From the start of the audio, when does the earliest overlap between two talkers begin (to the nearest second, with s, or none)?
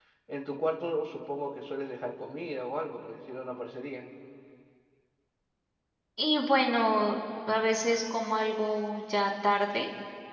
none